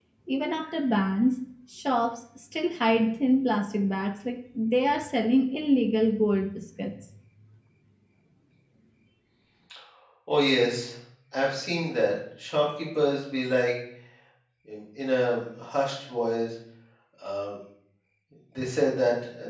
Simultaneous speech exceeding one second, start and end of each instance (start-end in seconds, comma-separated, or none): none